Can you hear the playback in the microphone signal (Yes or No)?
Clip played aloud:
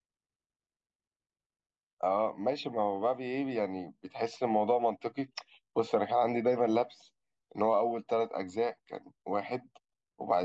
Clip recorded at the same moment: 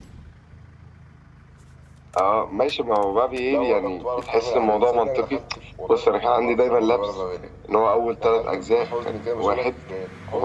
Yes